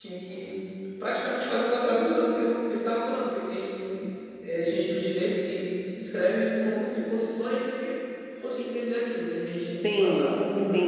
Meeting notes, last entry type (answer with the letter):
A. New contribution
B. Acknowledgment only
A